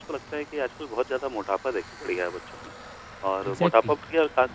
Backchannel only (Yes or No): Yes